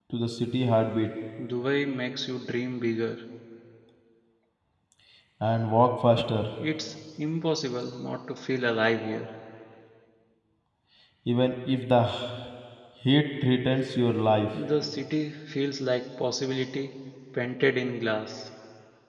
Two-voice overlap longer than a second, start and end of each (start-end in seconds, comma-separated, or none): none